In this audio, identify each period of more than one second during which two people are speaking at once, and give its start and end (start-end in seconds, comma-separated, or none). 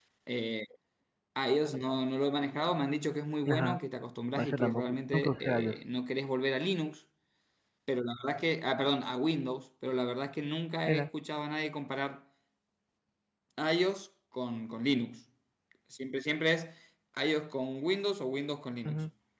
4.4-5.8